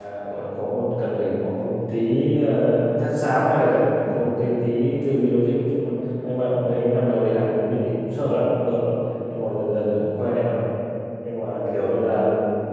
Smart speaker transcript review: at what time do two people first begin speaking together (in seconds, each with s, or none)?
none